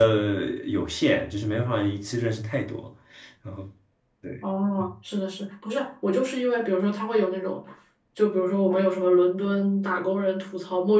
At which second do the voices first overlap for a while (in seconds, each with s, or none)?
none